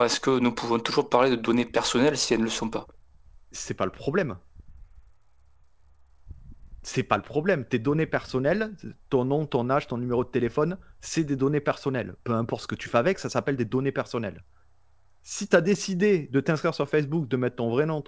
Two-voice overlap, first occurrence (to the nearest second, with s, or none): none